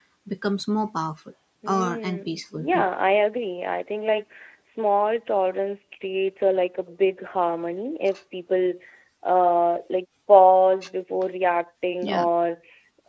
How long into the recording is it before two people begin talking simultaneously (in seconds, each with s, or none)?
1.6 s